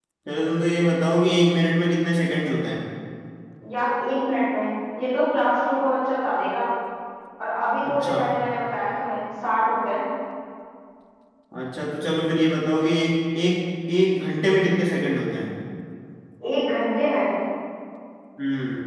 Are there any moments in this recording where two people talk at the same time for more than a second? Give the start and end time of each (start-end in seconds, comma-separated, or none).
none